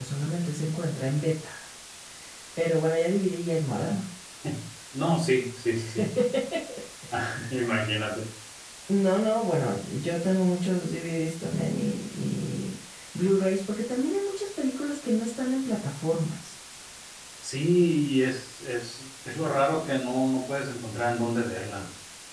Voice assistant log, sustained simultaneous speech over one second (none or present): none